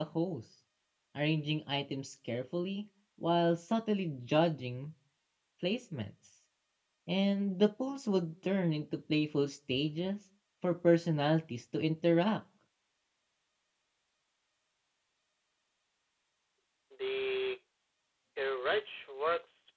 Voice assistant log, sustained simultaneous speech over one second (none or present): none